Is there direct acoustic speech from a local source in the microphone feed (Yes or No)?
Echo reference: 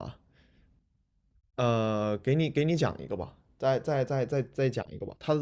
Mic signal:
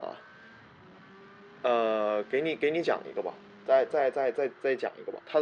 No